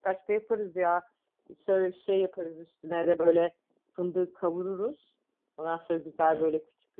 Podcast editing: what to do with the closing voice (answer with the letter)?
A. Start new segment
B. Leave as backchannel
B